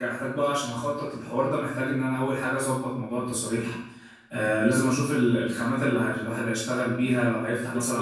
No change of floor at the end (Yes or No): No